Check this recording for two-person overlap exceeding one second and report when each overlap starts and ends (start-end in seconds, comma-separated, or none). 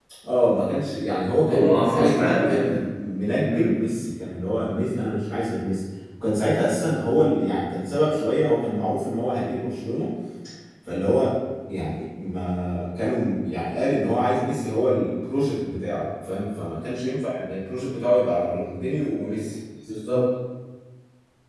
1.4-2.8